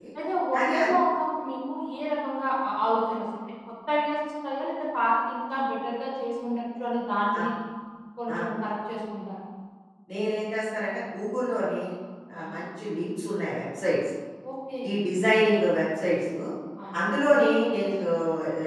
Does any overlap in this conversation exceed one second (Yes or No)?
No